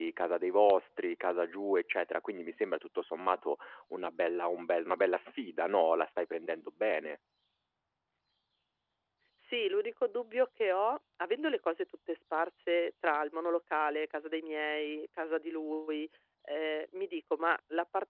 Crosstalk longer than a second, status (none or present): none